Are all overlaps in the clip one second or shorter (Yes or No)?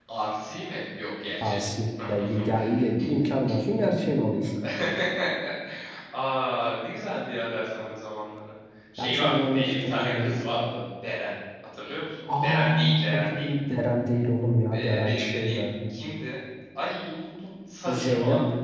No